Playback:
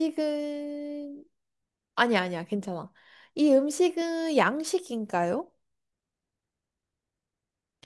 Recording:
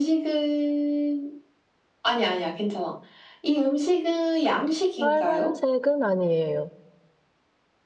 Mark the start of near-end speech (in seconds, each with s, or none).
5.0 s